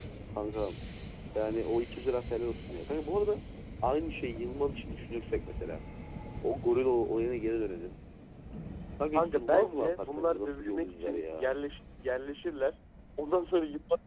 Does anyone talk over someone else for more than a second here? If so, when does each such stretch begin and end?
9.1-11.5

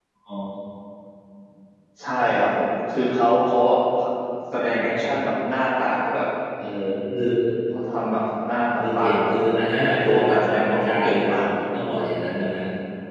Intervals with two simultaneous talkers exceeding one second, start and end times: 9.8-11.3

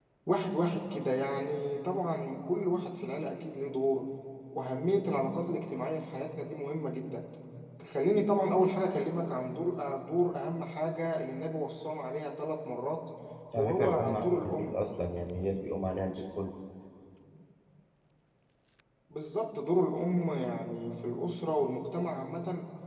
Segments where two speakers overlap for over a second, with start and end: 13.6-14.8

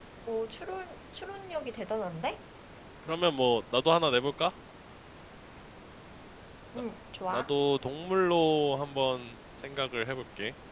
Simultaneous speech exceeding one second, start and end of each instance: none

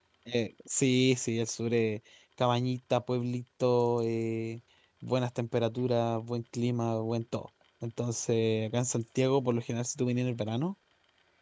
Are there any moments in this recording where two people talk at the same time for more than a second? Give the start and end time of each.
none

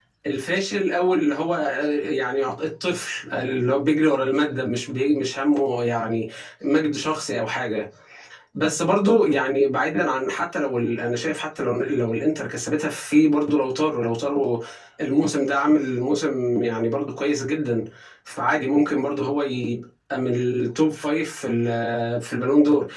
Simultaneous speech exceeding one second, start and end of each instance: none

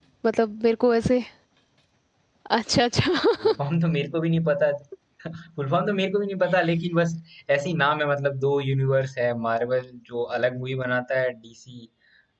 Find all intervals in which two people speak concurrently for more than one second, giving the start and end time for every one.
none

